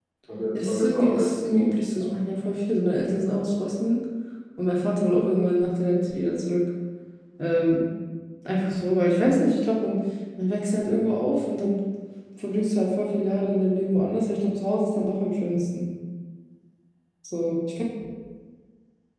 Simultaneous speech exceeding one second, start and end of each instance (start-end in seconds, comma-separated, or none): 0.5-2.1